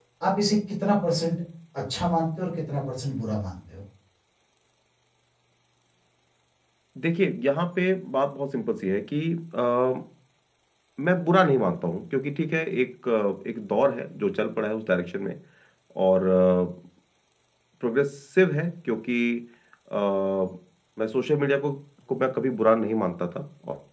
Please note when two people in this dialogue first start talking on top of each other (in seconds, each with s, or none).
none